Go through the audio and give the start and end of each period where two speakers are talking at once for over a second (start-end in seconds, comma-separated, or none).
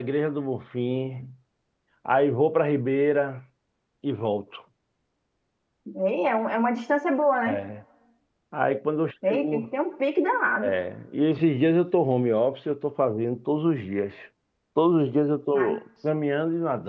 none